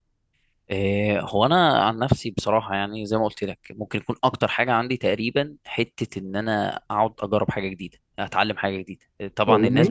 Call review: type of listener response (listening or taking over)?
listening